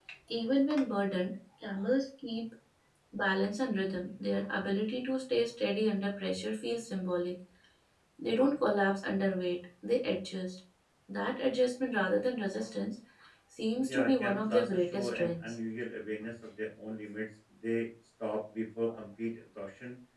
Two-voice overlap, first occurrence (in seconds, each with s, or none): 13.9 s